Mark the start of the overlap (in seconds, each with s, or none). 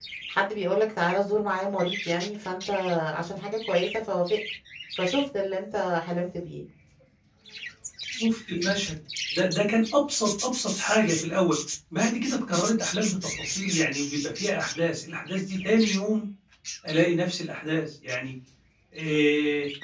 none